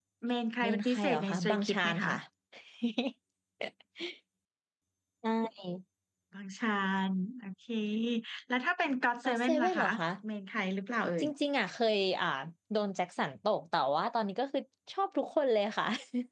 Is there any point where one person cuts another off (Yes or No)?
Yes